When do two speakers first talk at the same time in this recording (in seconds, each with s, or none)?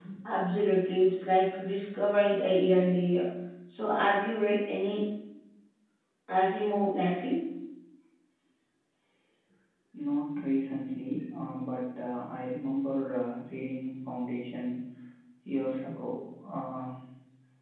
none